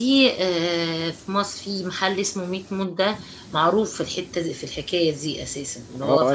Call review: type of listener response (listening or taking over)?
taking over